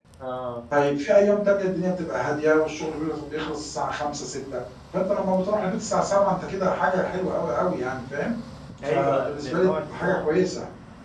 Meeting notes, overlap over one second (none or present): present